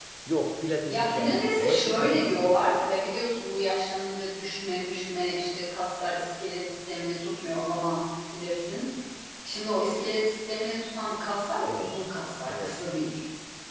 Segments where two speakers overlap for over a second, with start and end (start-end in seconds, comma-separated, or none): 0.9-2.6